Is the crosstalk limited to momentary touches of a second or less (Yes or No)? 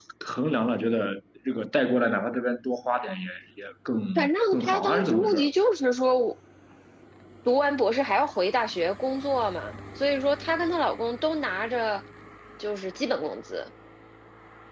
No